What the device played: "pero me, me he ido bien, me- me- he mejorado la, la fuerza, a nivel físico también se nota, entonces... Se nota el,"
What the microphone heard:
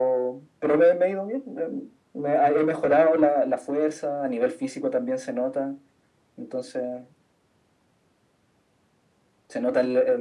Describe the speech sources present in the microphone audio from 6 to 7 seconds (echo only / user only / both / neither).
echo only